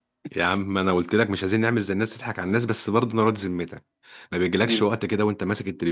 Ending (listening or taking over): listening